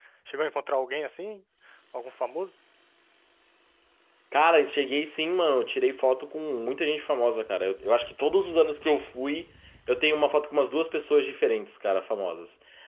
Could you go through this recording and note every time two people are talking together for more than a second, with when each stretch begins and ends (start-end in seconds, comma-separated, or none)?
none